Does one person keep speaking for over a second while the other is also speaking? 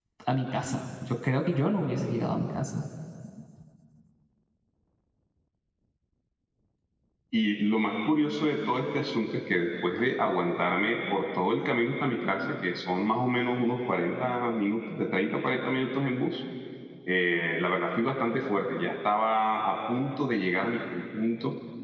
No

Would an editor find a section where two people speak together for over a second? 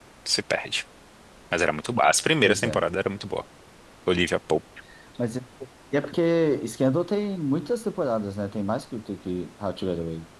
No

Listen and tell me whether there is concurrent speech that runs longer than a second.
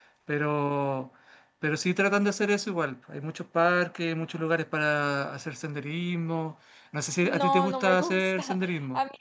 Yes, from 7.2 s

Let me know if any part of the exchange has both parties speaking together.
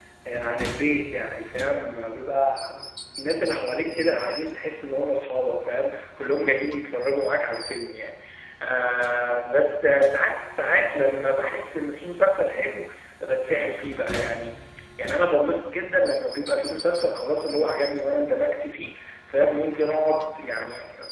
No

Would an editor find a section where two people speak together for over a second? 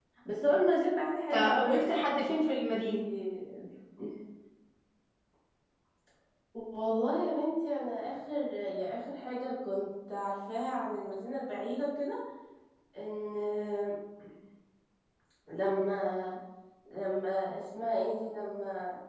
No

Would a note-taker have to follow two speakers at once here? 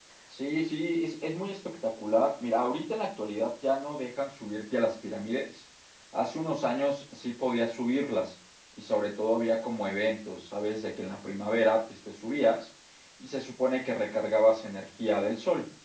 No

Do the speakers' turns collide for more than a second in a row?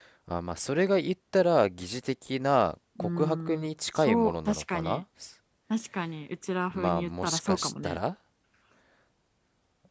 Yes, from 3.0 s

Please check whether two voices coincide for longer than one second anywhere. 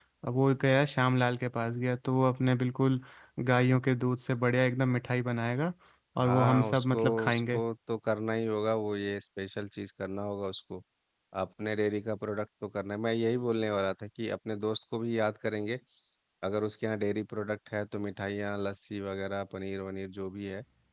Yes, from 6.2 s

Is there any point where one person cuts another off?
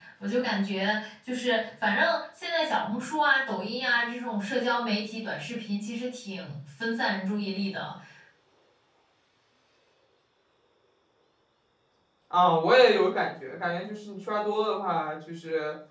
No

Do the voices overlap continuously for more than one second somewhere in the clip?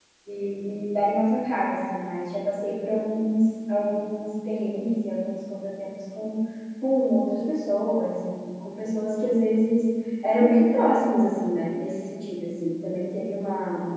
No

